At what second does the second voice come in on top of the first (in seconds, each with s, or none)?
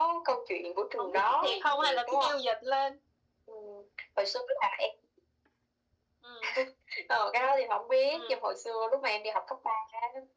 1.0 s